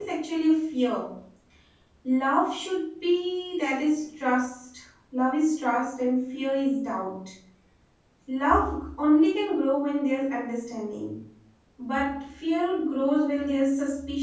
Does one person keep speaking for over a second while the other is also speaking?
No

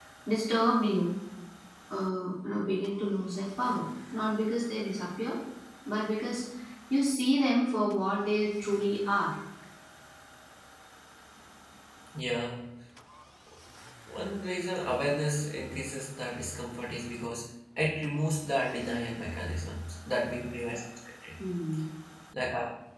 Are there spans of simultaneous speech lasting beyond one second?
No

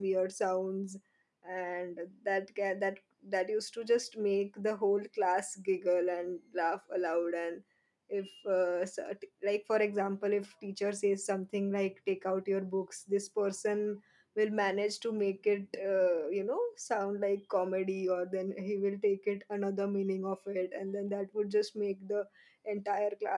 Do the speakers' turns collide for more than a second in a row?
No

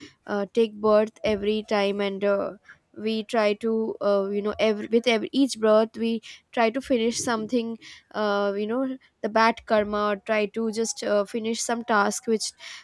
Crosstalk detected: No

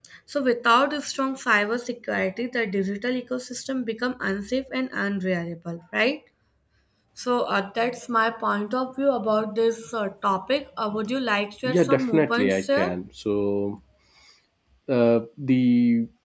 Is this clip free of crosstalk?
No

